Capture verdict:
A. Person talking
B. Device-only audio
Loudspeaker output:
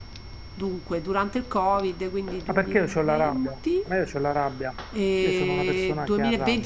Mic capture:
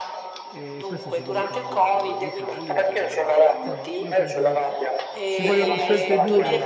A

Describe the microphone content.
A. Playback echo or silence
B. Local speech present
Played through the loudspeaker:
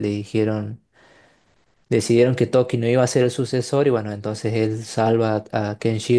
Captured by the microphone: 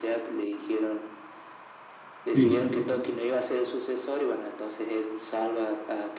B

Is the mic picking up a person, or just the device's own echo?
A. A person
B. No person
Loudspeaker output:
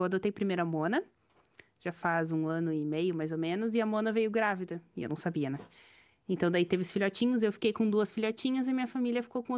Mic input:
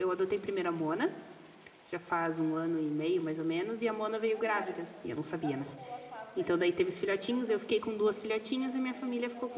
A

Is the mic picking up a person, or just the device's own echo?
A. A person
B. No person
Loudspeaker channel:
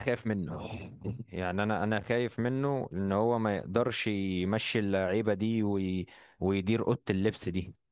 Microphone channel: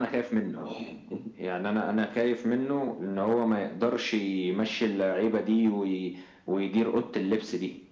B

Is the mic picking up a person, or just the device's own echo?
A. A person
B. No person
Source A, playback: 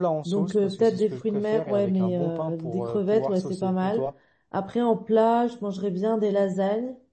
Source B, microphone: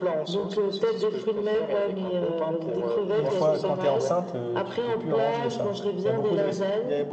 A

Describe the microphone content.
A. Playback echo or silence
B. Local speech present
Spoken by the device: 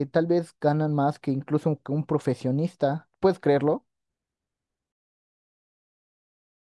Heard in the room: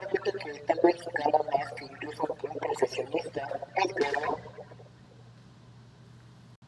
A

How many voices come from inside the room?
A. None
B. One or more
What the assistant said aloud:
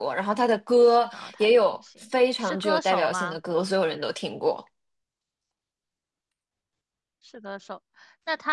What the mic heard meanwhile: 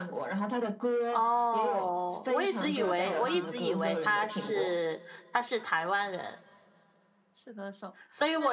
B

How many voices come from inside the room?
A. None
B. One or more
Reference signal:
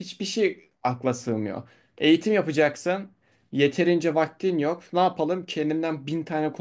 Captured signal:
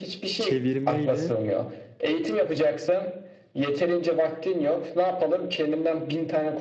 B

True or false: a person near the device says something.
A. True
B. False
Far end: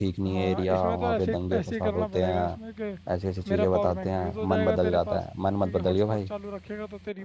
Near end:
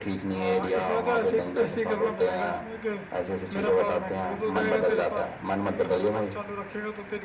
B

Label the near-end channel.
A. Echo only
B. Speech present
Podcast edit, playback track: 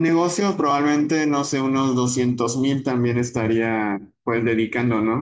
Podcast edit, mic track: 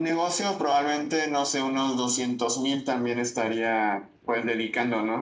A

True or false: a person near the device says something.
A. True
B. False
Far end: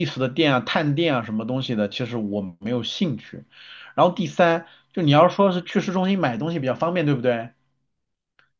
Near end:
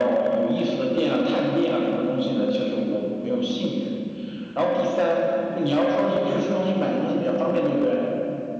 B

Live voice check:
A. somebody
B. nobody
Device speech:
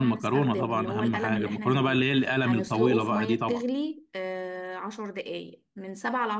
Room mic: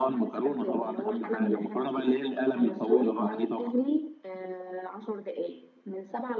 B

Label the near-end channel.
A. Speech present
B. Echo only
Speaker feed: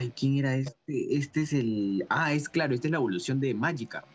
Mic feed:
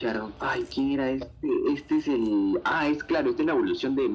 B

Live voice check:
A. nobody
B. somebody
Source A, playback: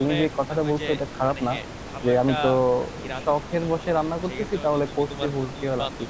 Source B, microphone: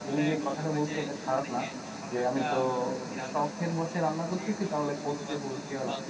A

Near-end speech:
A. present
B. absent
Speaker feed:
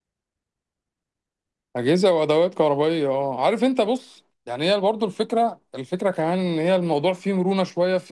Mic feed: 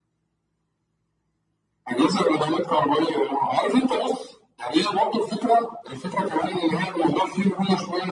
B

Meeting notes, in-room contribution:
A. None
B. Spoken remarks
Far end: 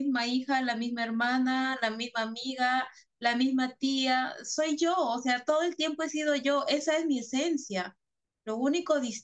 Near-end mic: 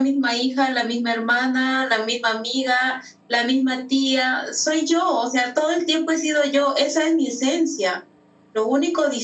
A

